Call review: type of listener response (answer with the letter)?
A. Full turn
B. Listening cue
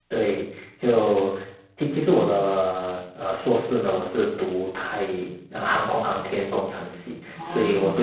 B